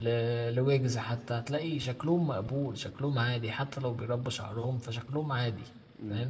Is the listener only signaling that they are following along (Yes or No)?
No